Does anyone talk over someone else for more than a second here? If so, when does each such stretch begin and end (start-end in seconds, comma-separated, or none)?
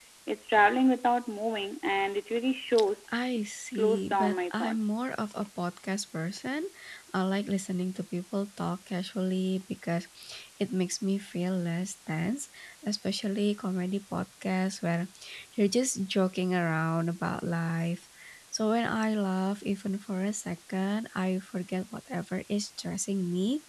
3.7-5.1